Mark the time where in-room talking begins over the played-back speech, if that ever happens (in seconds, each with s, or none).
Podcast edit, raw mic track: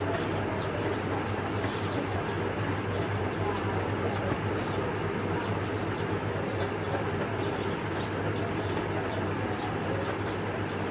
none